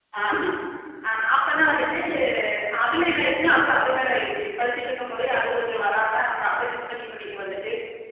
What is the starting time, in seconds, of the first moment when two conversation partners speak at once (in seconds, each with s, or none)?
none